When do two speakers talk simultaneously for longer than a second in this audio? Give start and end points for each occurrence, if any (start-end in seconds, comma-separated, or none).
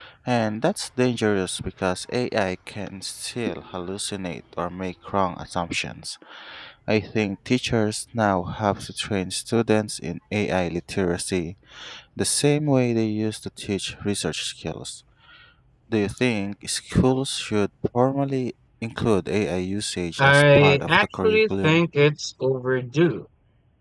20.2-21.8